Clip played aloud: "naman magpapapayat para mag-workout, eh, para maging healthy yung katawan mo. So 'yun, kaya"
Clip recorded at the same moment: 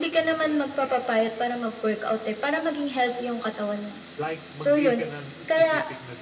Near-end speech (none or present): present